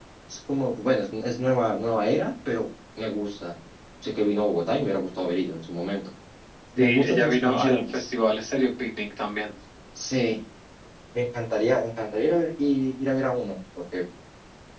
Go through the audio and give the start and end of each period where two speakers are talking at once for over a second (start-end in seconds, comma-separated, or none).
6.8-8.0